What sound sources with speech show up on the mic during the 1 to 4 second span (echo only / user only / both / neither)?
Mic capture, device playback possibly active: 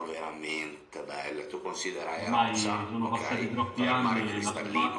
both